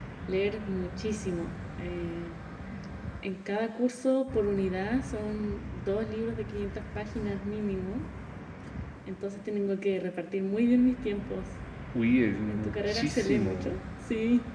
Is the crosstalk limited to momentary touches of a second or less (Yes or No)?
No